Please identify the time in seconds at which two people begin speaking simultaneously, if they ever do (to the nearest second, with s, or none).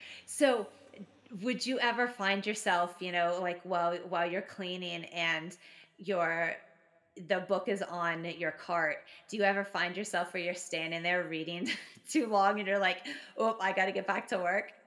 none